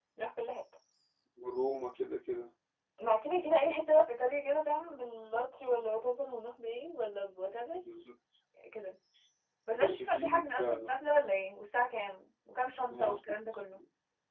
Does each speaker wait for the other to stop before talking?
No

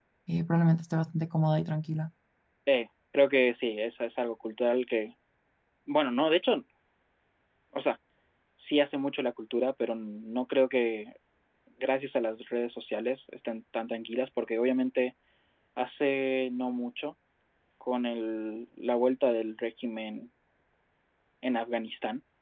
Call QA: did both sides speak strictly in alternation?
Yes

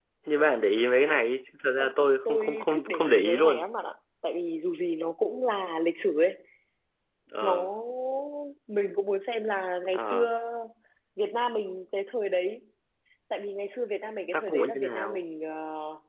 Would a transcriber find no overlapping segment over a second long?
No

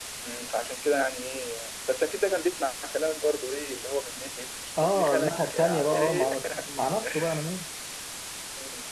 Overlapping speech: Yes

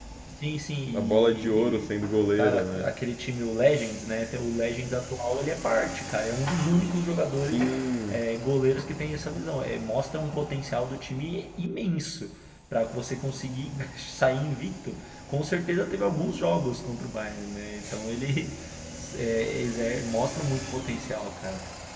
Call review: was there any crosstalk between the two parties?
Yes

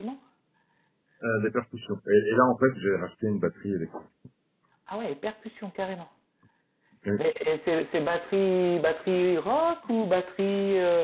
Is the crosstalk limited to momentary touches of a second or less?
Yes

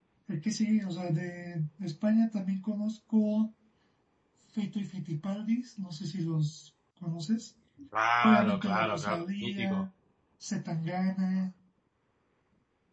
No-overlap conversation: No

